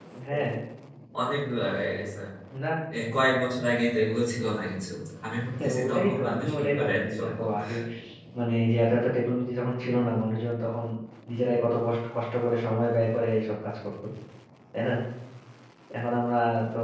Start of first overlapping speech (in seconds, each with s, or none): 5.6 s